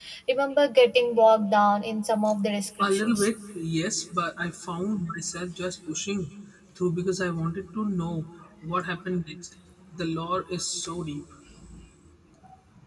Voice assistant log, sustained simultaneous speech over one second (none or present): none